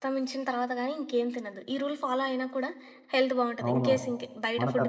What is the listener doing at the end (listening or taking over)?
taking over